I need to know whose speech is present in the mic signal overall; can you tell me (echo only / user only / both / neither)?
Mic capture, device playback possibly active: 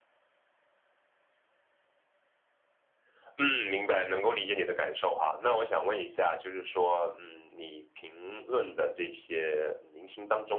echo only